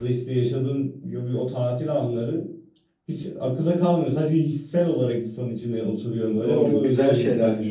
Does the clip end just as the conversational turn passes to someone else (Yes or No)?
Yes